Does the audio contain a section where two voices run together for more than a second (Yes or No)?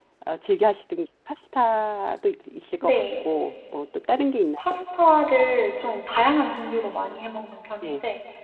No